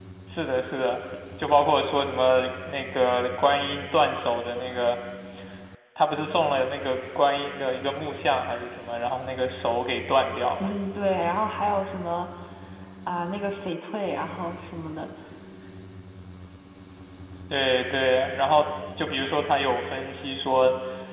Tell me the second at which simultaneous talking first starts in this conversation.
none

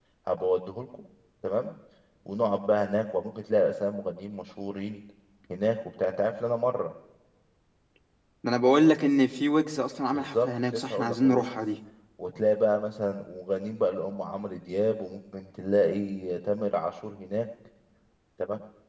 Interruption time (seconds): 10.1 s

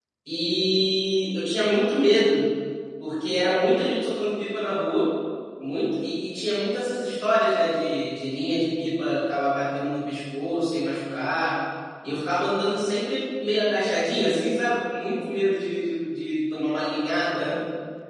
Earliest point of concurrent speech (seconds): none

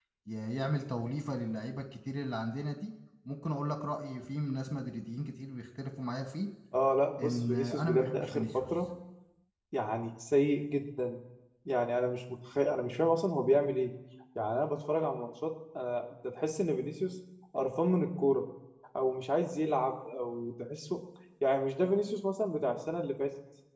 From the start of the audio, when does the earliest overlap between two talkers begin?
7.2 s

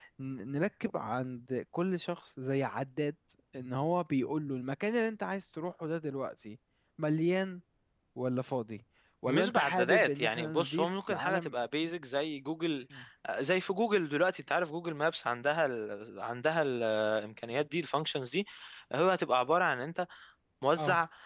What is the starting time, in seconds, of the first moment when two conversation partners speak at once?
9.3 s

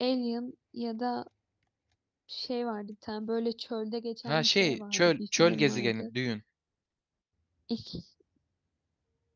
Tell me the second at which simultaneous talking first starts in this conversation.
4.2 s

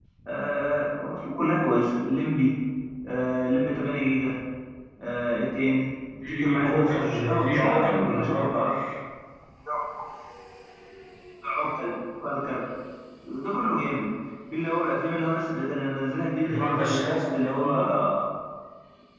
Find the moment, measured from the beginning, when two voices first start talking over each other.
6.3 s

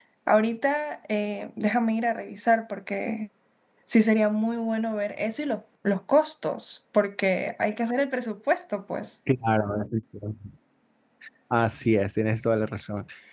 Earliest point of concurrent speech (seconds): none

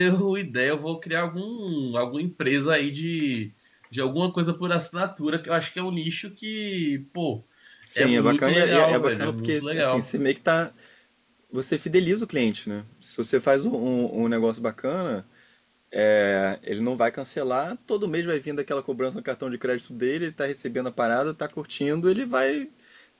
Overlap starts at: 8.0 s

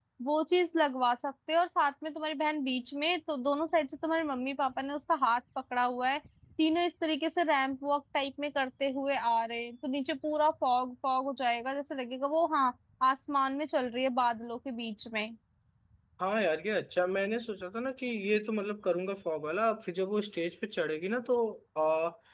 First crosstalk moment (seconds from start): none

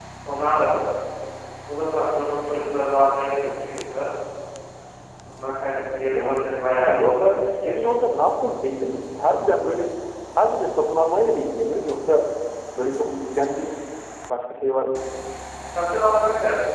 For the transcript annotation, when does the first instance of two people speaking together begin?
6.1 s

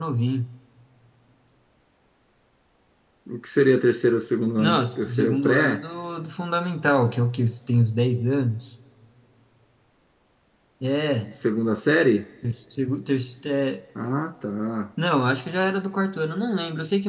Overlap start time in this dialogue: 4.6 s

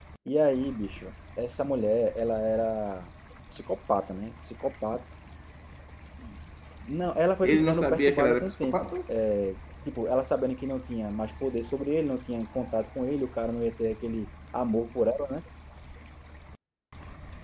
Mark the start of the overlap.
7.4 s

